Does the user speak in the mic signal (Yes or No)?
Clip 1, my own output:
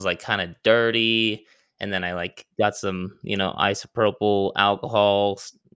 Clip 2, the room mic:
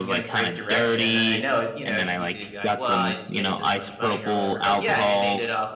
Yes